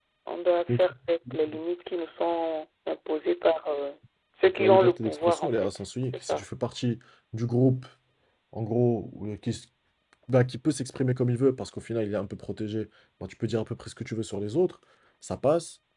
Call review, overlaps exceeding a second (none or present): present